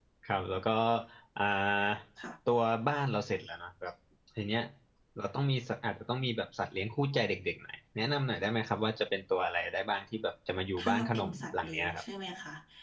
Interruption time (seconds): 10.8 s

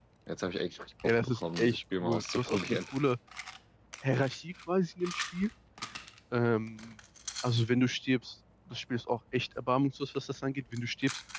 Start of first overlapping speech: 1.2 s

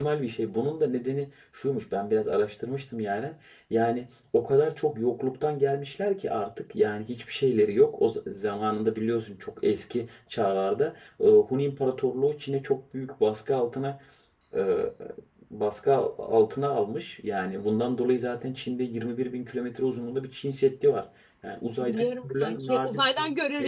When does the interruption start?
21.8 s

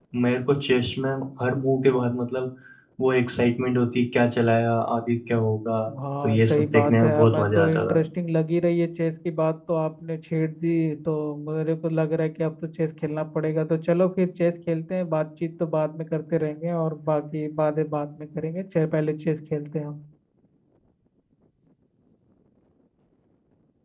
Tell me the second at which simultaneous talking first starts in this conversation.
6.2 s

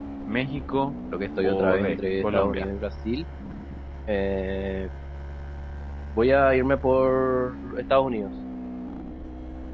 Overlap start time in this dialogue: 1.4 s

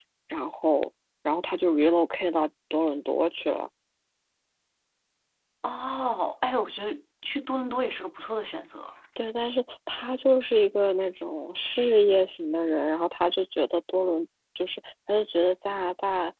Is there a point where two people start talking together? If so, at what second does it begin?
none

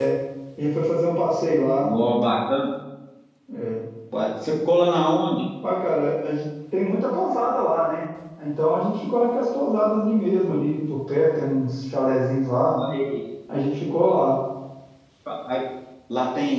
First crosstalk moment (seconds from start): none

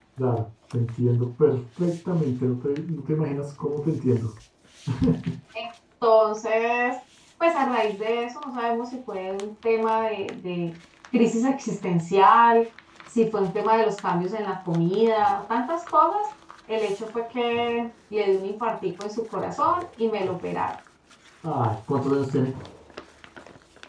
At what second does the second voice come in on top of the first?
none

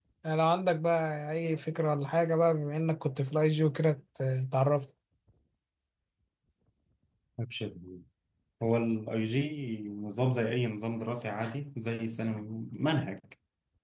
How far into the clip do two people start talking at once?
none

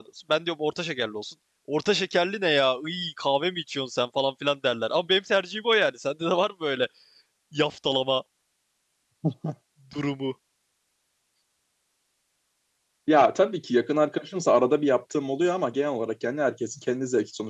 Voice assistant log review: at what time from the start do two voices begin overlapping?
none

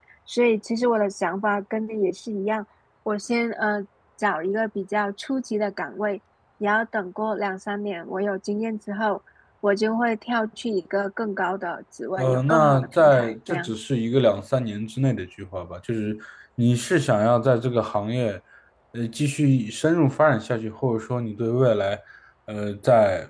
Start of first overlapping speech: 12.2 s

